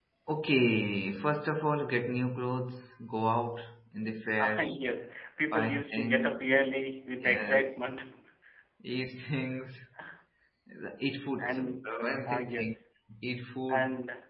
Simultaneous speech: Yes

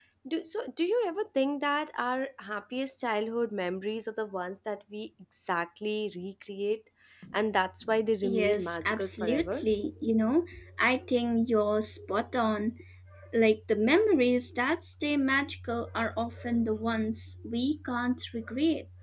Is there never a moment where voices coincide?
No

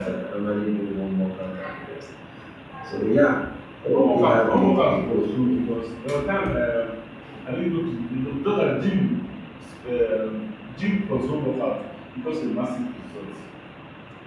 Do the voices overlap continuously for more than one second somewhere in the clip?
Yes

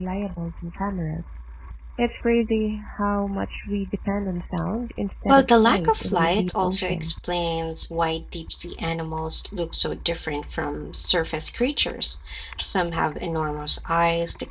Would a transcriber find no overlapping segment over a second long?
No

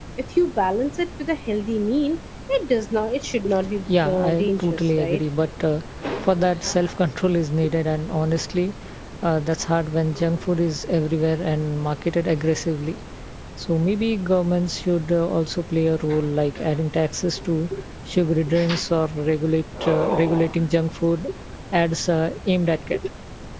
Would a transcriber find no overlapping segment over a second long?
No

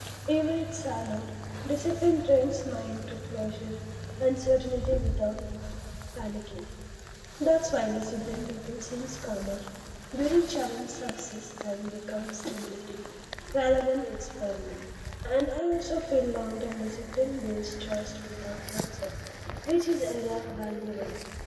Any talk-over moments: No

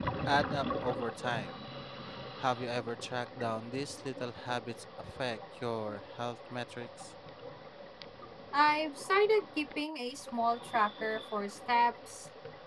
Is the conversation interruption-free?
Yes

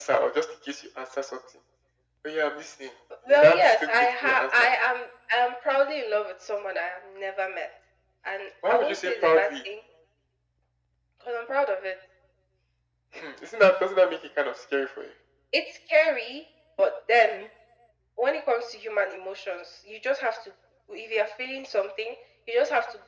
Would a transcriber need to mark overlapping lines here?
Yes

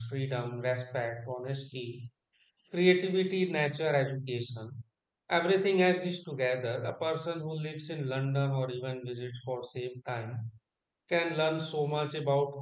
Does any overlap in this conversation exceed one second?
No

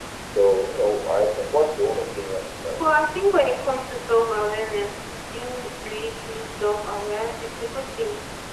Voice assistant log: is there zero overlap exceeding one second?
Yes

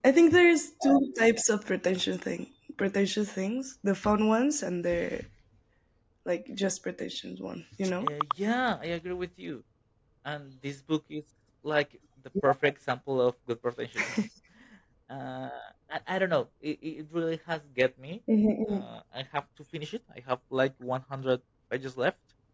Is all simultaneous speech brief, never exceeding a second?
Yes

